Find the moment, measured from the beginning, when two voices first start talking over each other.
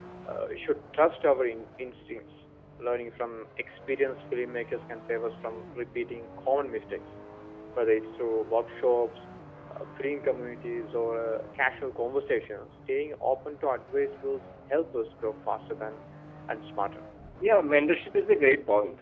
none

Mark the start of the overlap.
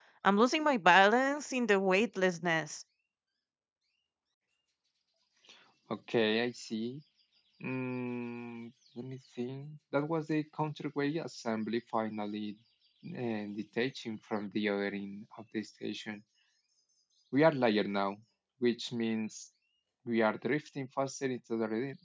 none

